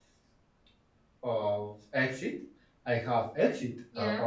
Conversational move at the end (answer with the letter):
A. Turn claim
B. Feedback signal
B